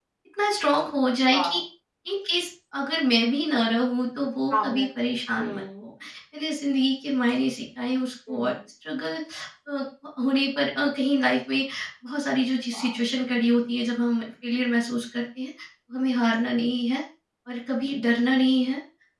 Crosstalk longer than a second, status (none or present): present